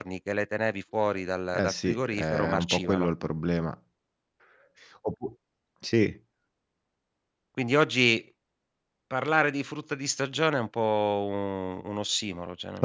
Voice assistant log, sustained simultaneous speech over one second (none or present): present